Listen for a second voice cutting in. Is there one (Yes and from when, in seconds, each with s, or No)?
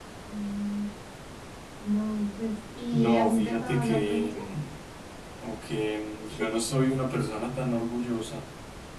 Yes, from 2.9 s